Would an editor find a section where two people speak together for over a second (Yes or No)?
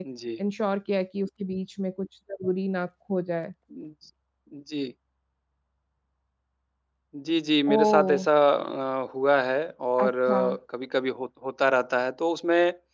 No